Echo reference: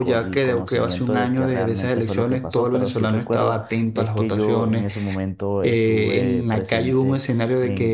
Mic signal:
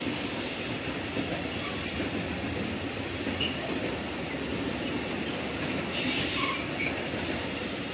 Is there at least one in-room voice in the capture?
No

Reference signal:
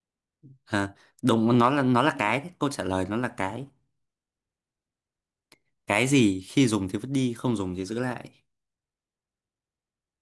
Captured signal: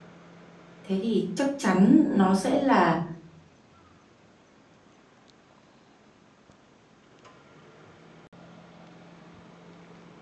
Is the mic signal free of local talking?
No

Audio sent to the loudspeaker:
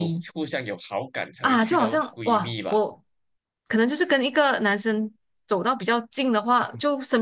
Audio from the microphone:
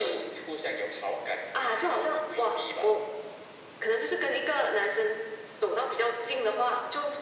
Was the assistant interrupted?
No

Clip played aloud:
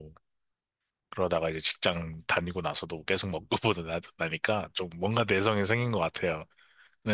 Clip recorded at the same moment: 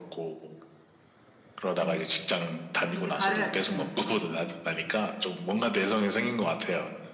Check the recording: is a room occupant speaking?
Yes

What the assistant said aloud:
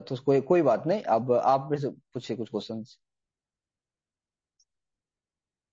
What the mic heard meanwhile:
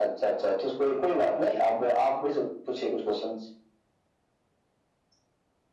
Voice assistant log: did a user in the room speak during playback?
No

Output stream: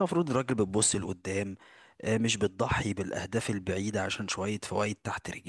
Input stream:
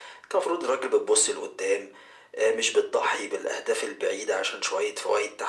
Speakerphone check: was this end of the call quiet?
Yes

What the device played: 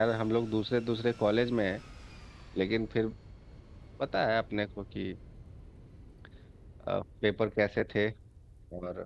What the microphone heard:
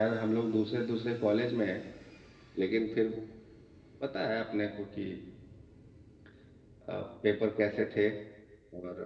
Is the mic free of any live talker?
Yes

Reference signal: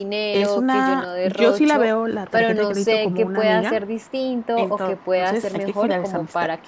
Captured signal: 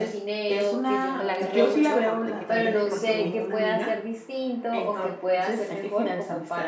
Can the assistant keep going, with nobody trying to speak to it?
No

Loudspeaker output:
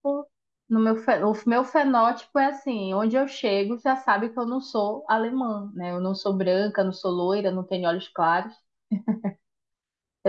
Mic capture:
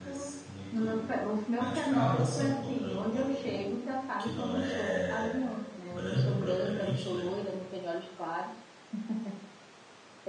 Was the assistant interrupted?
Yes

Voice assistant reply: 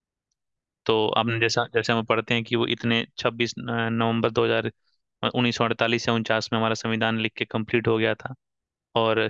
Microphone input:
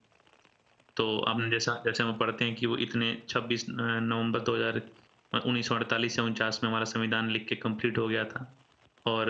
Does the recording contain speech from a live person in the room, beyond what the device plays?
No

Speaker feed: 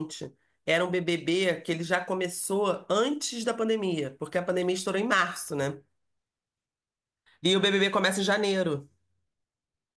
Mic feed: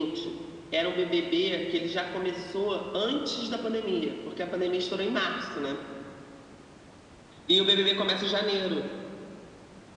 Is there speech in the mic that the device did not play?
No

